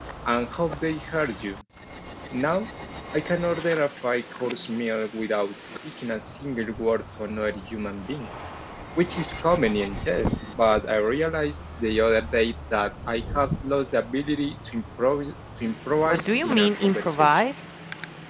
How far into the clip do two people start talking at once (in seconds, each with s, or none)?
16.1 s